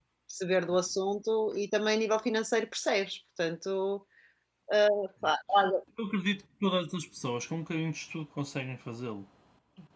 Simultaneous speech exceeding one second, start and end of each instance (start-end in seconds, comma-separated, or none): none